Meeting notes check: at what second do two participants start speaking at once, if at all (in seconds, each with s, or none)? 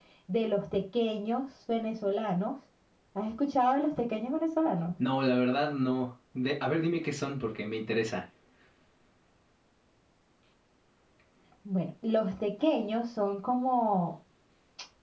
none